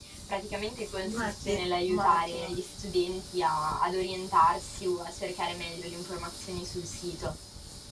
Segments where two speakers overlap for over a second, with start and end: 1.1-2.5

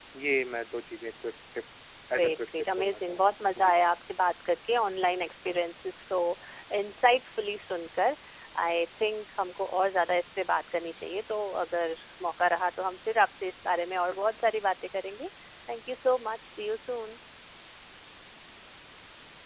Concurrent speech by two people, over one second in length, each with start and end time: 2.1-3.7

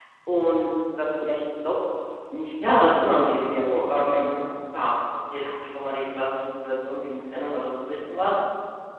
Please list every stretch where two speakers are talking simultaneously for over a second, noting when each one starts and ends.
2.9-4.5

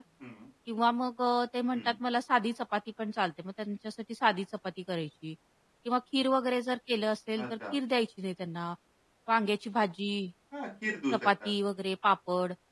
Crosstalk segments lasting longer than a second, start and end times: none

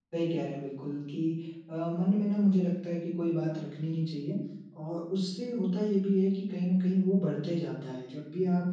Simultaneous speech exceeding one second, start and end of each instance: none

